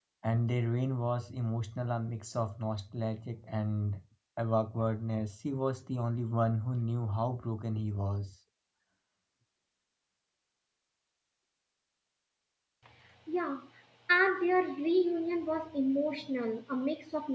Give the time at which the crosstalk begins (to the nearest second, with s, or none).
none